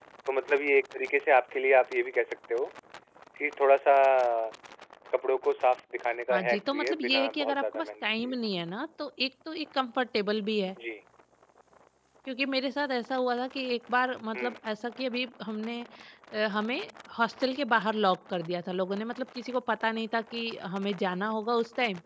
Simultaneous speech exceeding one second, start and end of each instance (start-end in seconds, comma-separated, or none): 6.3-8.3